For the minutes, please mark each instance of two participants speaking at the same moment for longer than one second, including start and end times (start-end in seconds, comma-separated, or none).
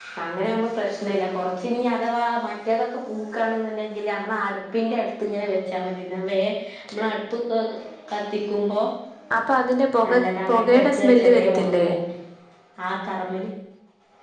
10.1-11.8